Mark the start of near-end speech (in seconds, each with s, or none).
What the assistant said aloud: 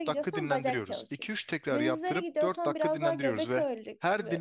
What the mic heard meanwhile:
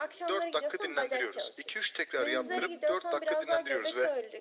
2.3 s